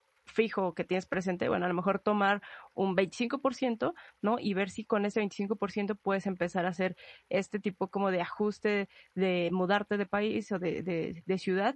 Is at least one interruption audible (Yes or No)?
No